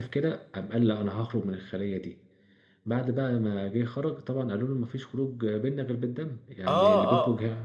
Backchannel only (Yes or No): No